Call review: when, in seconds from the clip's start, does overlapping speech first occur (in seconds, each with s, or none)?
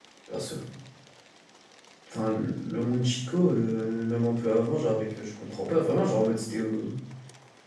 none